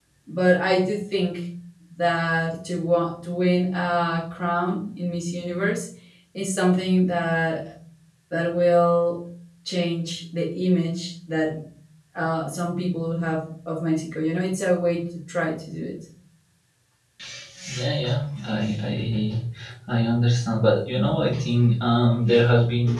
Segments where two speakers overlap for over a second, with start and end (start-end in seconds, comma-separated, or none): none